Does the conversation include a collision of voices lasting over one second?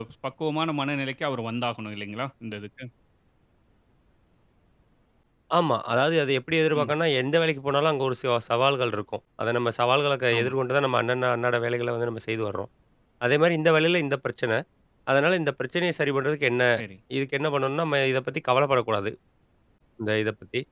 No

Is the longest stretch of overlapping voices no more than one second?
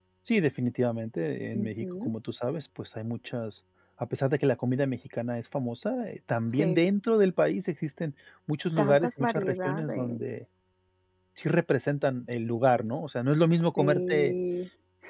No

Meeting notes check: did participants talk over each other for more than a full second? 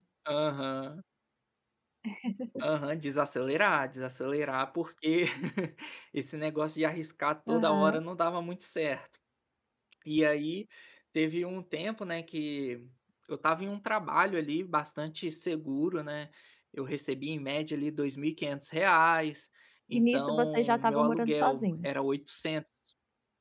Yes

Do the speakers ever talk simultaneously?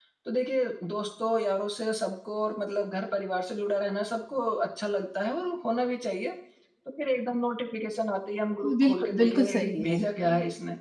Yes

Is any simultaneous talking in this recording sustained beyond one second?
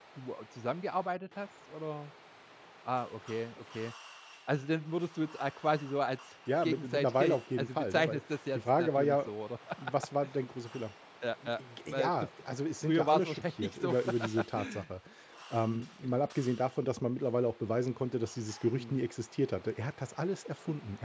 Yes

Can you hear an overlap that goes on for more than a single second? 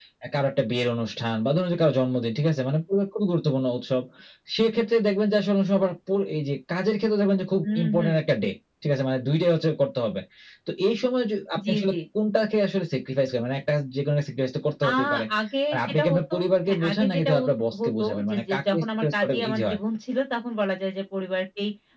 Yes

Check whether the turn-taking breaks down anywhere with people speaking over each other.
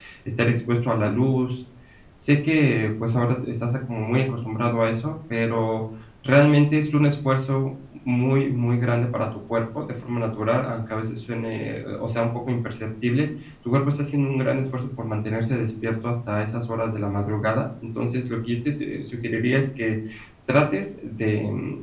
No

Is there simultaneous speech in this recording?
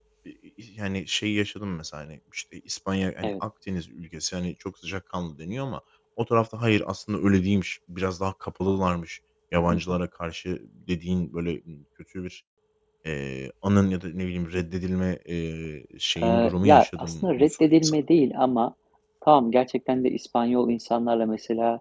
Yes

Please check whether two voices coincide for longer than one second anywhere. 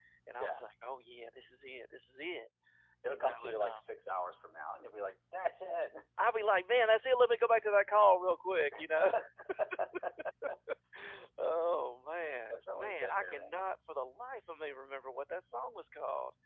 Yes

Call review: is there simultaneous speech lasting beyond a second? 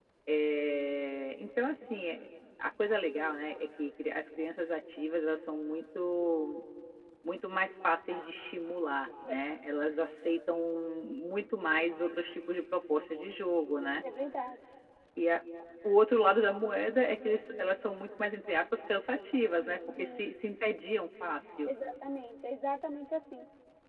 No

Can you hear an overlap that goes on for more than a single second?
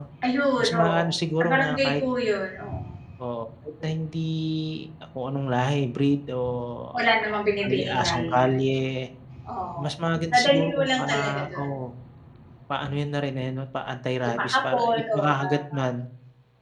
Yes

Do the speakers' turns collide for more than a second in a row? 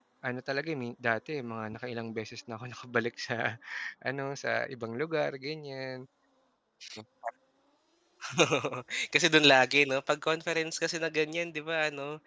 No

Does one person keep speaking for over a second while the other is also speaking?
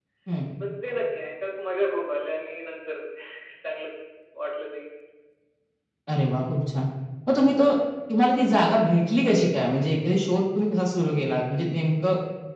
No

